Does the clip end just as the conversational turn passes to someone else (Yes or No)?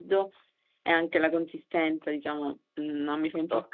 Yes